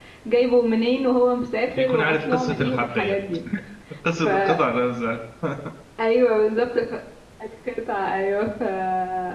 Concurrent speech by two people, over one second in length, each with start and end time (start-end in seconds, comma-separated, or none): 1.8-3.2